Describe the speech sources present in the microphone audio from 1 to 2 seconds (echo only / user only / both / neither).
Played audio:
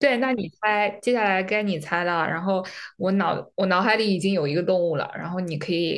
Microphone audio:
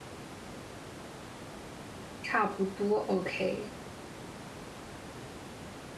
neither